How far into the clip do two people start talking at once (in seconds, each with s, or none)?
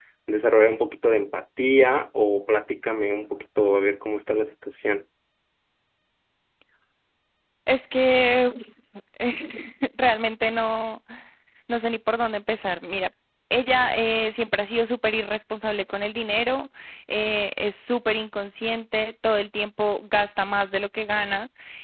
none